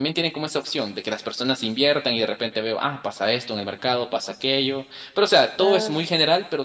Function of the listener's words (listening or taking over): listening